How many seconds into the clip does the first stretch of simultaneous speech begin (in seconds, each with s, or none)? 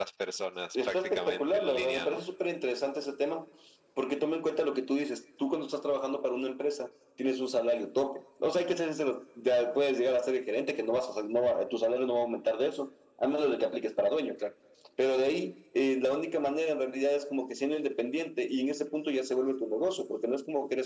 0.8 s